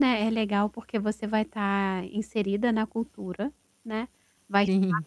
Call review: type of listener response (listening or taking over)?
listening